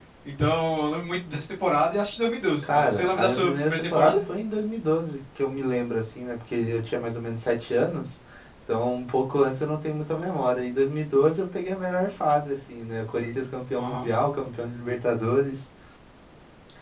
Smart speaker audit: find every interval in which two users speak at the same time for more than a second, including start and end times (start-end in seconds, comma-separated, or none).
2.6-4.2